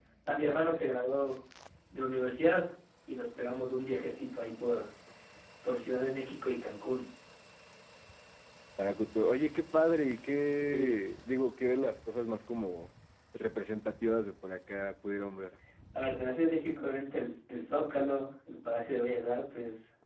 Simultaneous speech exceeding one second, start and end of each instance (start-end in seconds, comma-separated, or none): none